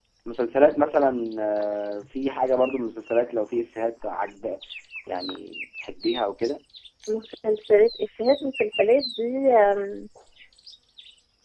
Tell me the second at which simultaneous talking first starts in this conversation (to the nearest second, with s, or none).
none